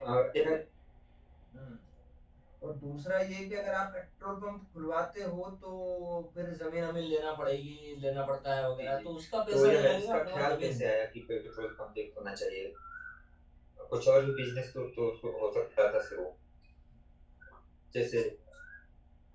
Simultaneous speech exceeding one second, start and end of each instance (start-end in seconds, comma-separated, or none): 9.5-10.8